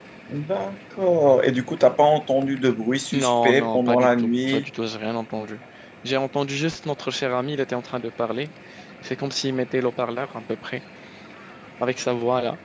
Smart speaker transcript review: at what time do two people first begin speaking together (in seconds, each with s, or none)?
3.1 s